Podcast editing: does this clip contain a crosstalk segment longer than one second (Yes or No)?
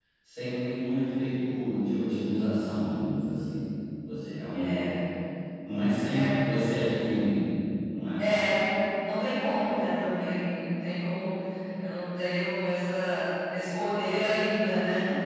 No